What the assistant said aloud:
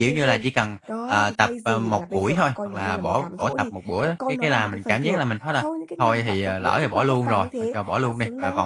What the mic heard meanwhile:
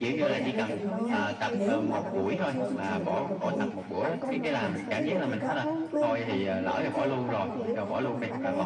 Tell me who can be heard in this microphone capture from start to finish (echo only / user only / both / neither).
both